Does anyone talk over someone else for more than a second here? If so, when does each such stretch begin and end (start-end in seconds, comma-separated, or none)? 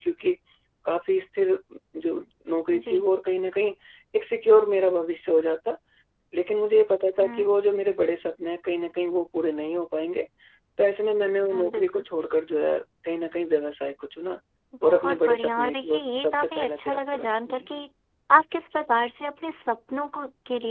14.8-17.7